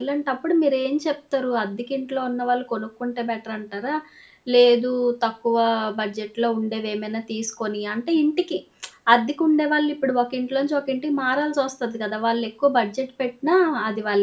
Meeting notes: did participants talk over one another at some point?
No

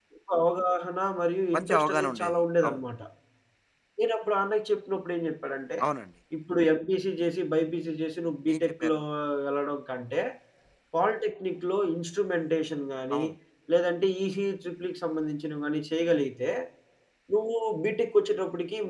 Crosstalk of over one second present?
Yes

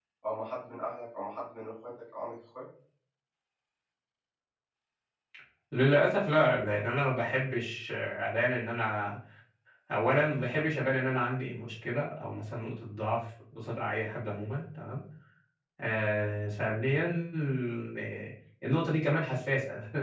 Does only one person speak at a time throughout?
Yes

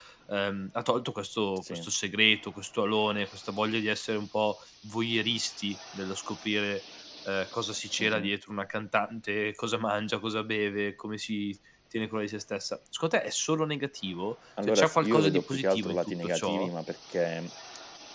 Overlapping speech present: Yes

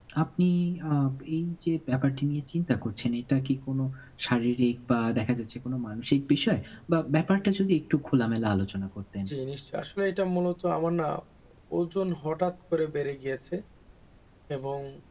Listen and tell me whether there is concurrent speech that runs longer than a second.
No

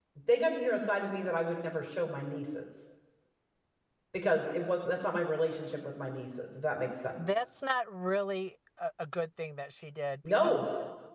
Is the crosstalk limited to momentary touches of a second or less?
Yes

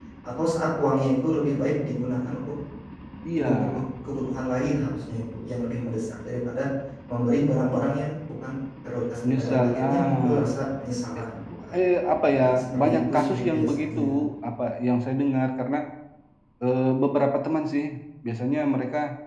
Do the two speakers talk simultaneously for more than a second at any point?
Yes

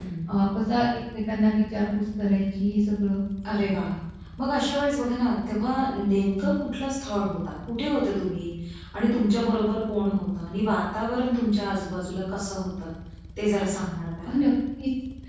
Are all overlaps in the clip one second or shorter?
Yes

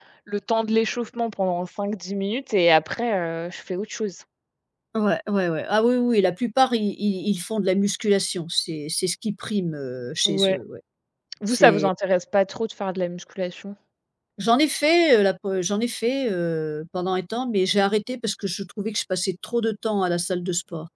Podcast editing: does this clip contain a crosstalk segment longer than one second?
No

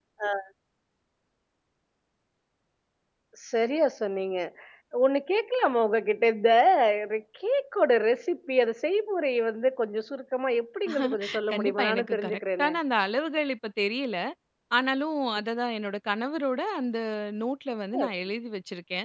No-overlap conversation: No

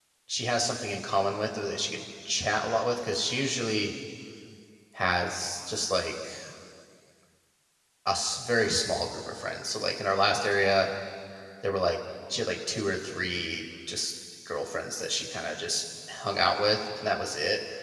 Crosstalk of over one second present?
No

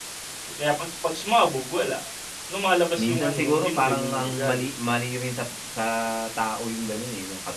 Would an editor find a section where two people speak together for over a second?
Yes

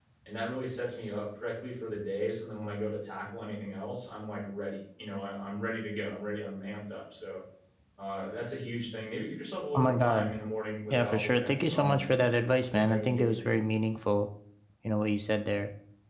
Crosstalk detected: Yes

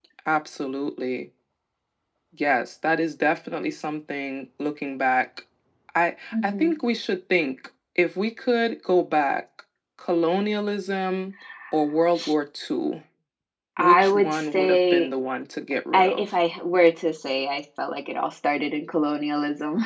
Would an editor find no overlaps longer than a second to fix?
No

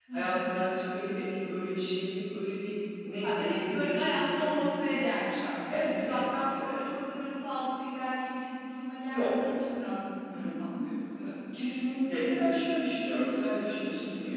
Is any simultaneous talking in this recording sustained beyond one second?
Yes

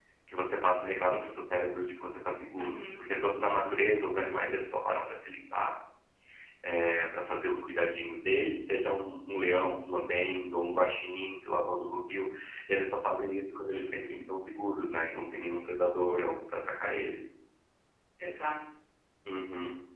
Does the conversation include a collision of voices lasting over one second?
No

